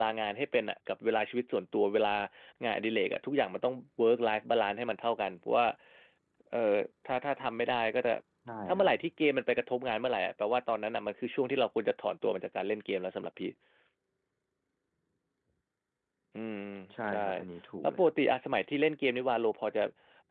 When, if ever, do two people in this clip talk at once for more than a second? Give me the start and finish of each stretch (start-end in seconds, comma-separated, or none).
none